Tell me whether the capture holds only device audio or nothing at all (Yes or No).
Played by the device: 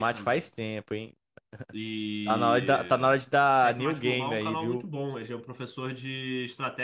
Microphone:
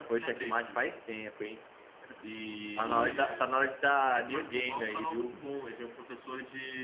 Yes